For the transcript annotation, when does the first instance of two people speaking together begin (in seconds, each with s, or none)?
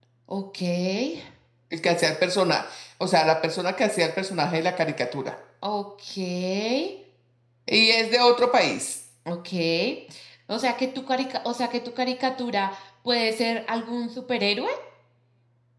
none